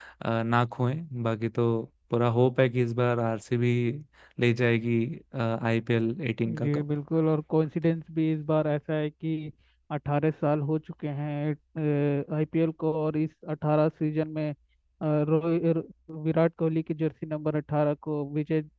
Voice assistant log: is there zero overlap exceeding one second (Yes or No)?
Yes